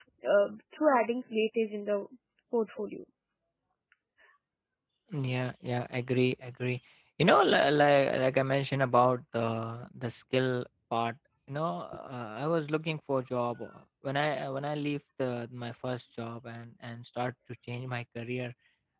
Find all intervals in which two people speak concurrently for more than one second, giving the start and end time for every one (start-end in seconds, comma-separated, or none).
none